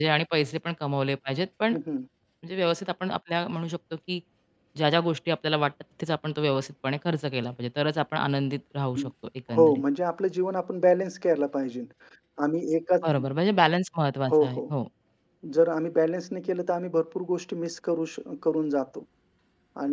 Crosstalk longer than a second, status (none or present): none